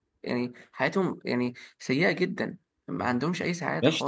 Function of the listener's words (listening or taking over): taking over